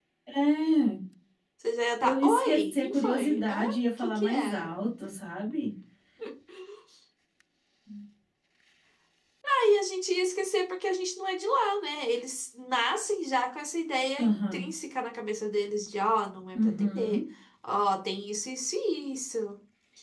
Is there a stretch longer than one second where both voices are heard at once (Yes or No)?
Yes